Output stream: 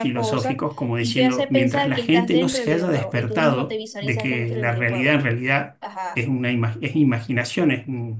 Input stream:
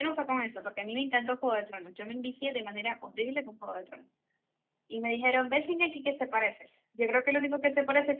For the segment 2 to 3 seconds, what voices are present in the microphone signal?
user only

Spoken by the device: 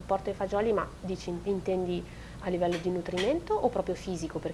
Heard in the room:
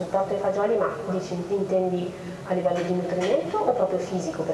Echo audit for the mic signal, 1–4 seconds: echo only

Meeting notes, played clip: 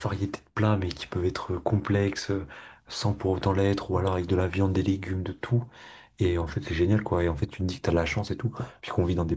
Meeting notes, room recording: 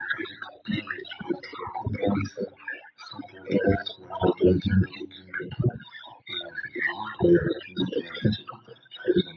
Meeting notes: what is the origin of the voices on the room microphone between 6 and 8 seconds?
echo only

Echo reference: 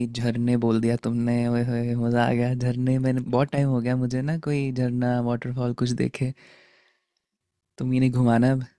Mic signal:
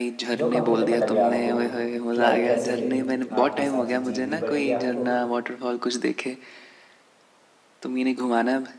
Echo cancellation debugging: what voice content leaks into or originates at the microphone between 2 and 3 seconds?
both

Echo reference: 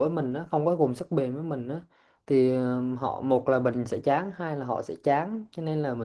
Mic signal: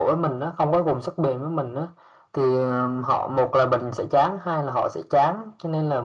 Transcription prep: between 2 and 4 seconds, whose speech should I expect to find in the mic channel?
echo only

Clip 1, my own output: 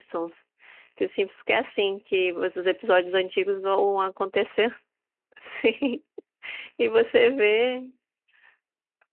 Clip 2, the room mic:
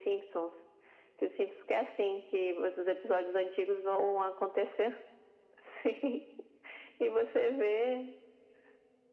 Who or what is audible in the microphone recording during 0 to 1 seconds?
echo only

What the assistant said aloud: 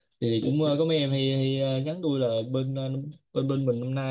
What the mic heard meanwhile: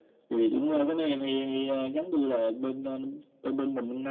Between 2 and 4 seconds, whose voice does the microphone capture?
echo only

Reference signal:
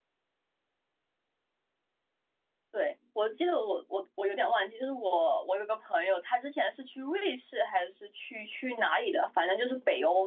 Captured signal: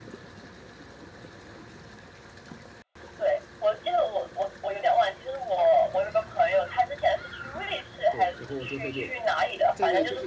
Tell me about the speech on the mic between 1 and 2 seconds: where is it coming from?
neither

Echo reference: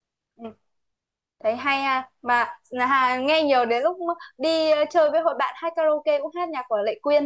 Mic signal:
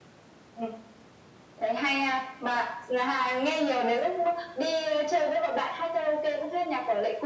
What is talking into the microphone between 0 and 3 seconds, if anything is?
echo only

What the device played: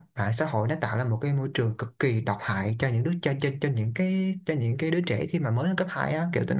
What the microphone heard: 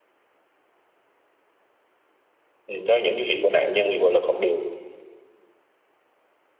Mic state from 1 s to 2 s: neither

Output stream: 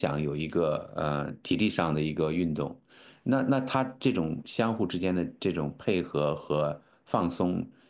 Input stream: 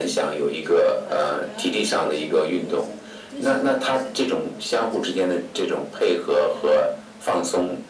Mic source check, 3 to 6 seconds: both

